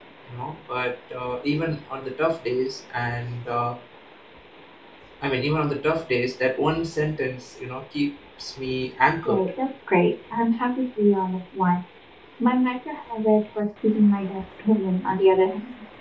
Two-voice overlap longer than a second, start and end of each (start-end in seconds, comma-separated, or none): none